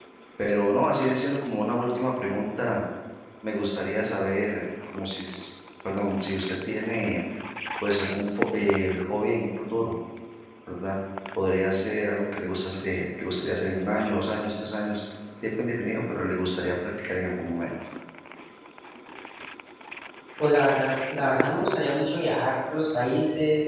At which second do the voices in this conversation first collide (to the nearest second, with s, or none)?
none